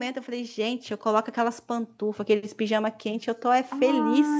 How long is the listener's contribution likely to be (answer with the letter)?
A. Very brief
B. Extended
B